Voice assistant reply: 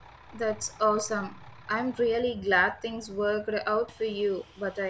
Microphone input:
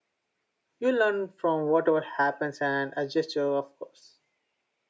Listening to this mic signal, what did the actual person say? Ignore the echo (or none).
You learn from whatever happens and adjust your, of course.